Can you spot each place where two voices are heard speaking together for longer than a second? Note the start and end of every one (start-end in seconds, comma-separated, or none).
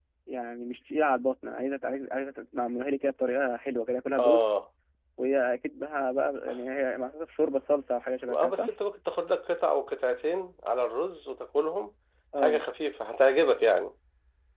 none